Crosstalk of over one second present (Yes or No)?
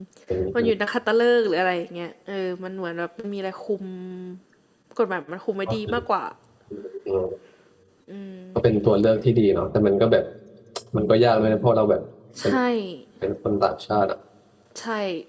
No